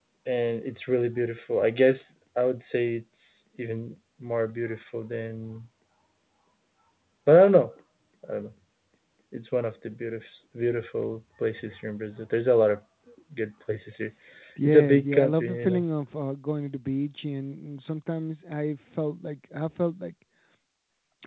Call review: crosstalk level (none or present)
present